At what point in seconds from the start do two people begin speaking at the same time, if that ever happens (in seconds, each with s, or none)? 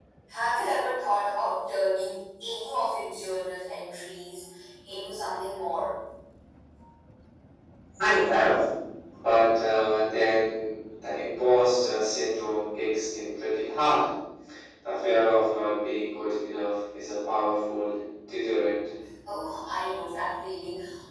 none